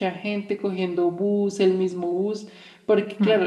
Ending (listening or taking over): listening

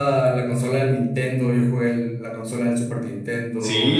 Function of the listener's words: taking over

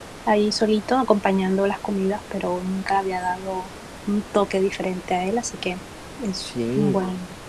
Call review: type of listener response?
taking over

